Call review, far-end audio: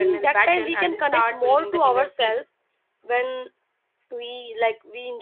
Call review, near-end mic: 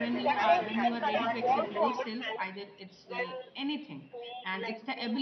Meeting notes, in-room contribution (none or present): present